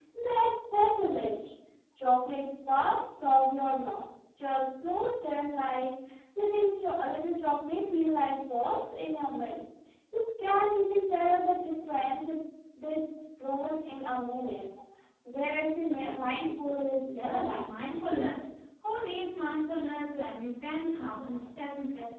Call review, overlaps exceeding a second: none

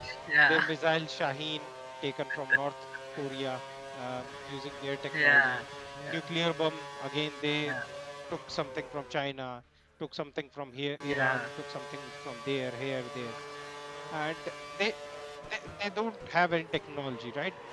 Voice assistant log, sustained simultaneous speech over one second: none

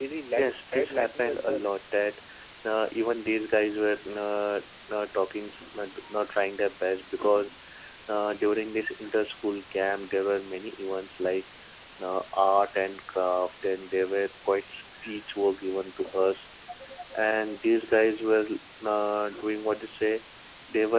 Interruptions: present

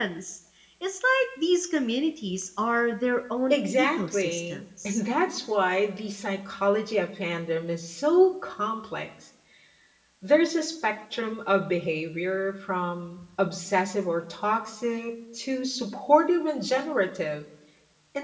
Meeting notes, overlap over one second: present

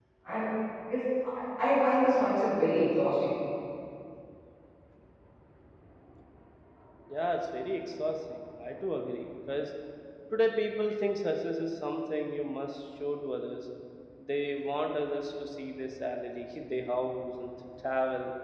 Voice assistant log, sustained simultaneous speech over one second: none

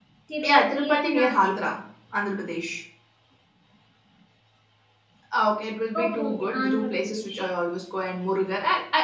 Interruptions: present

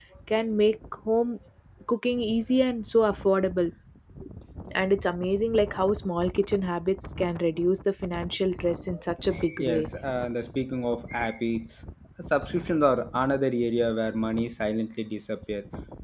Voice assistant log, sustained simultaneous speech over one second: none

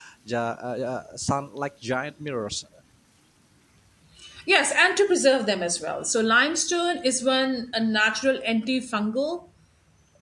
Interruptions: none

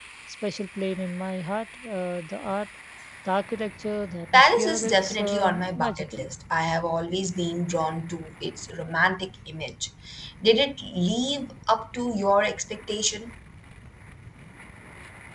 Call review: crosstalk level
present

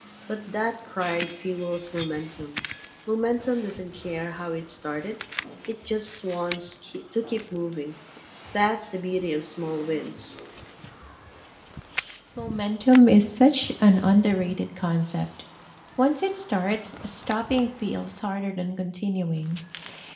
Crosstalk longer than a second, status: none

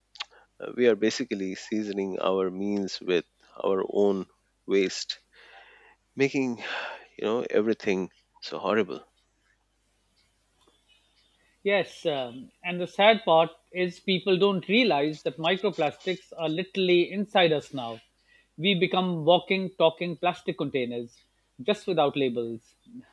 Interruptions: none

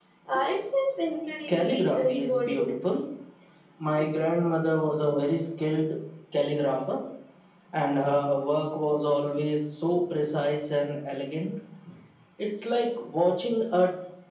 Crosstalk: present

